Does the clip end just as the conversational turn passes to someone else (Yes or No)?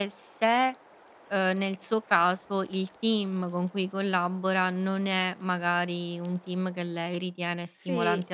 No